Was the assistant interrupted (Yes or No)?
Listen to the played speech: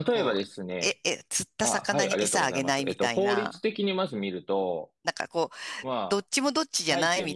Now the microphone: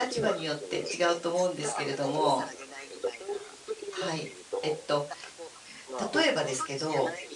Yes